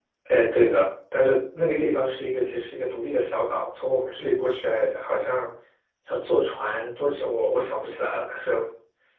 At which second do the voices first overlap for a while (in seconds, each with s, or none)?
none